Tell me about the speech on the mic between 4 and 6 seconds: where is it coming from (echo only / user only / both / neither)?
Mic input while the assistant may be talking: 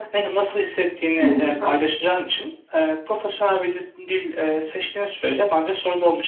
echo only